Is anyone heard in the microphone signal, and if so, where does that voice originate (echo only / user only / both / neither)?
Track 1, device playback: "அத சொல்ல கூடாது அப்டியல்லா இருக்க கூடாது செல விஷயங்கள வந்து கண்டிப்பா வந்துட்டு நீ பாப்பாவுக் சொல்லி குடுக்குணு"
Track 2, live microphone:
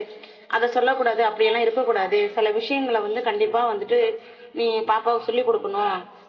echo only